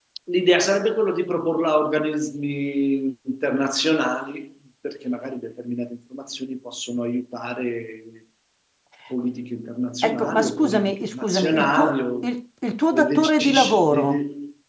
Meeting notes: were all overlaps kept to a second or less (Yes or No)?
No